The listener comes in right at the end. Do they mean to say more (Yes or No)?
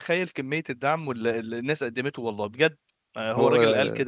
No